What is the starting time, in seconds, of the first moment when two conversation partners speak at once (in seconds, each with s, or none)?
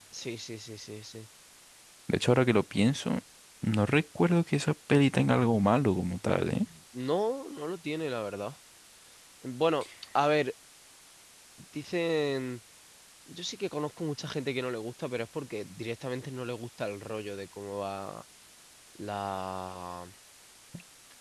none